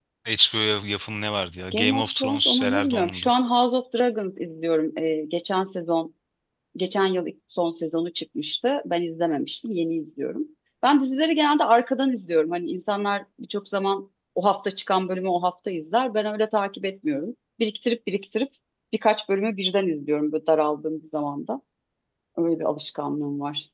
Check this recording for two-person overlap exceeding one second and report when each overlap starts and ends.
1.7-3.3

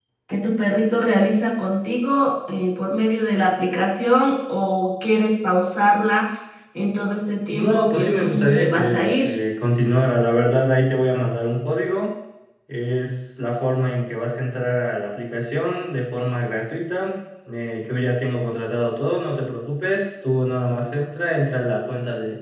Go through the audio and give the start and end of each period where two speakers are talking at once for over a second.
7.5-9.3

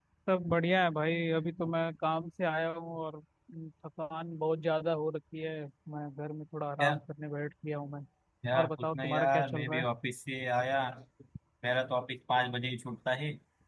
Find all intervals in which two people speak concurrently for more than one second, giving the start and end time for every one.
8.6-9.8

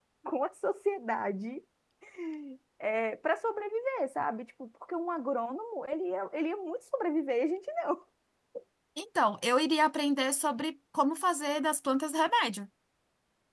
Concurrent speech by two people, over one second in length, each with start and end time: none

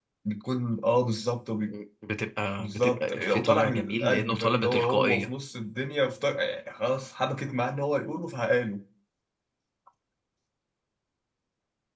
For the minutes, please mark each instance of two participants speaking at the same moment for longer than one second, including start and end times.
2.6-5.3

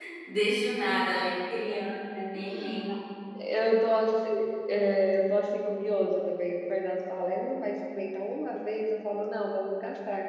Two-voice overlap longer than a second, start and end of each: none

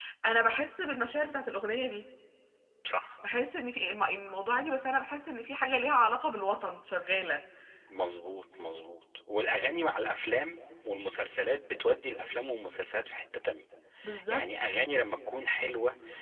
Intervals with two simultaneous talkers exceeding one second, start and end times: none

